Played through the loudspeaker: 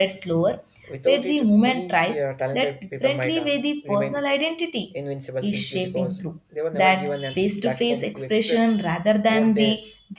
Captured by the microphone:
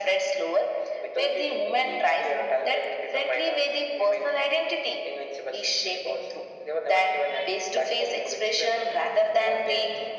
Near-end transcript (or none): none